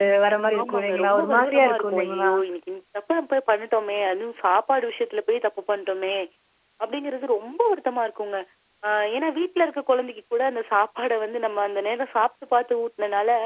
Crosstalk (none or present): present